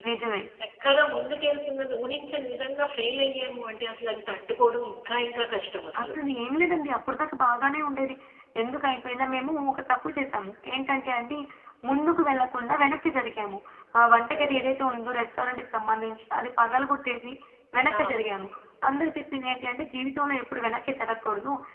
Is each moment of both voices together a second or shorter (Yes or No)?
Yes